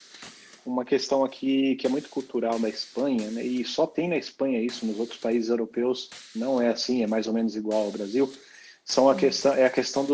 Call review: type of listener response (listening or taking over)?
listening